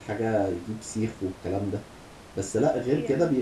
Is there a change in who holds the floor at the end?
No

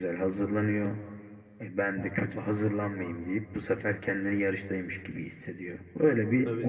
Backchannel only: No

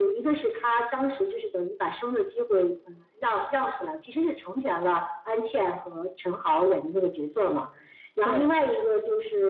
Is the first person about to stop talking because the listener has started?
No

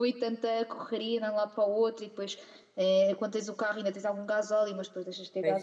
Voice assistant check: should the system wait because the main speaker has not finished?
Yes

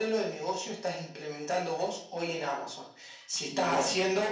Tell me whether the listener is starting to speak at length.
No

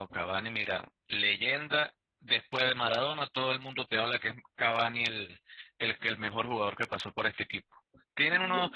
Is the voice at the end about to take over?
No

